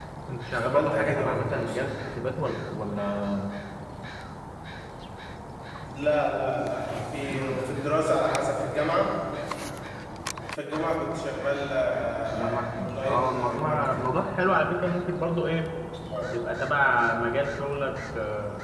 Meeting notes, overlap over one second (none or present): present